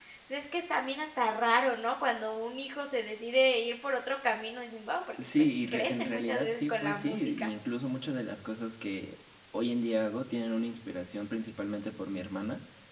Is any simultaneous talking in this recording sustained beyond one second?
Yes, from 5.2 s

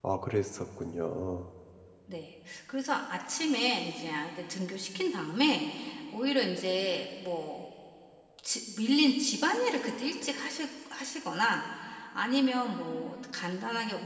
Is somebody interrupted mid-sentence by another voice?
No

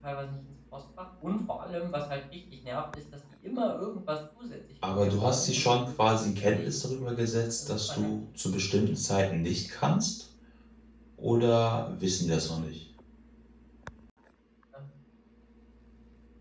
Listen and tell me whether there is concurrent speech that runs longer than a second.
Yes, from 4.8 s

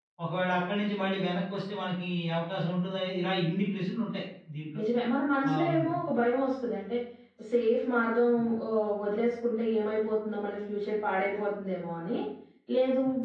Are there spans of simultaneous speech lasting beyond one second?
No

